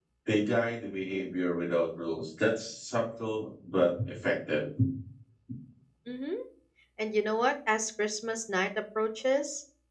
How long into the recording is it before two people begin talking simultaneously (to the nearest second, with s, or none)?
none